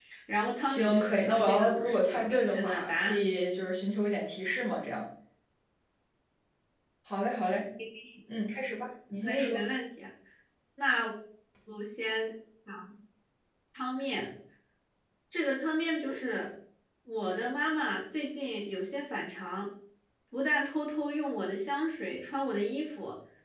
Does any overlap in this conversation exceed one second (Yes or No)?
Yes